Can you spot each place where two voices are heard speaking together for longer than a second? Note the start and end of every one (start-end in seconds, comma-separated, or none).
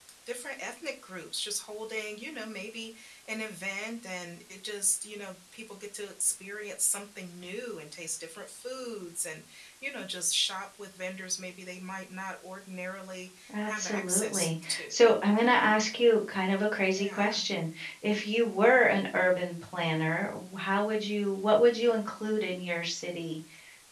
13.7-15.1